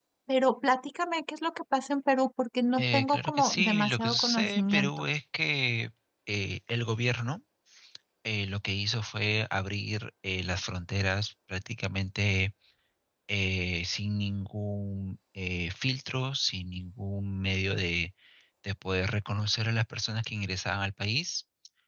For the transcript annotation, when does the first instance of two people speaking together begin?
3 s

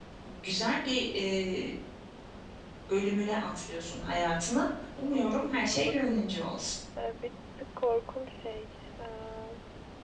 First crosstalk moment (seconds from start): 5 s

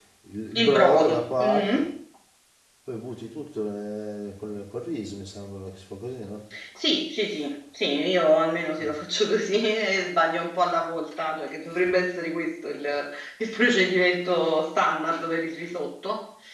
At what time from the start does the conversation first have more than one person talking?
1 s

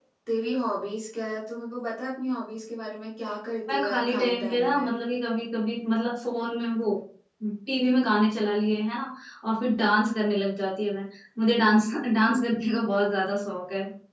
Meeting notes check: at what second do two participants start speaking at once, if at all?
4 s

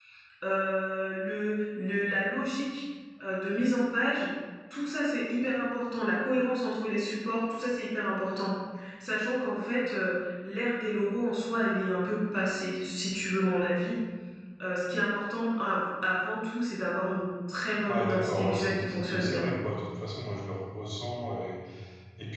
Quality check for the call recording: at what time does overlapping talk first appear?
18 s

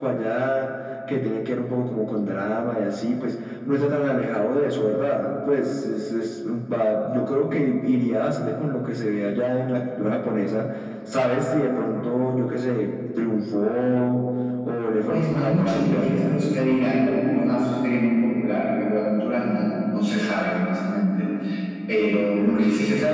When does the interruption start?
15 s

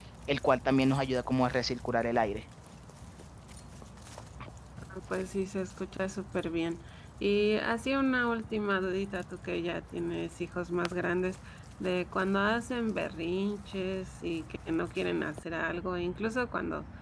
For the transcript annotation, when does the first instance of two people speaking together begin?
none

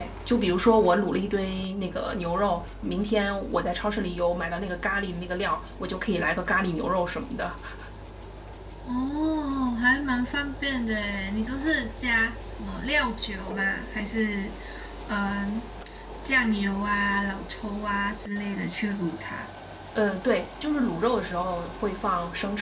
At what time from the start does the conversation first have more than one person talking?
none

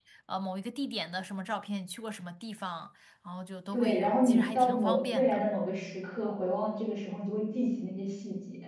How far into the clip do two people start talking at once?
4 s

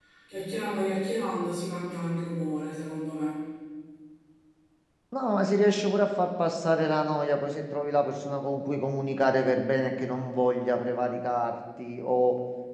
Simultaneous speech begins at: none

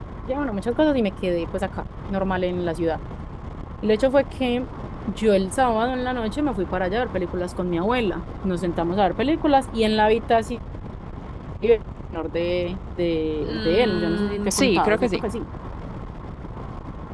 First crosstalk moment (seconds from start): 13 s

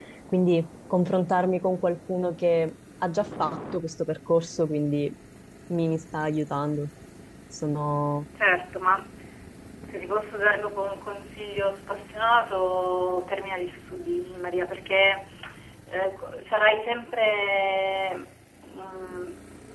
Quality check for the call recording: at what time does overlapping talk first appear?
none

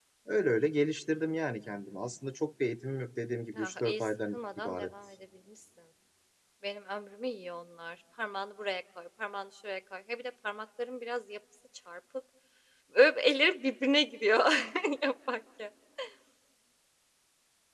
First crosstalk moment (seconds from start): 4 s

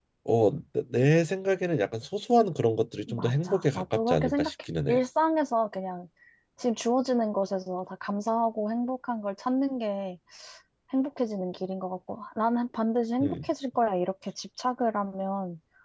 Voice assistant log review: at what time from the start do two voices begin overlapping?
3 s

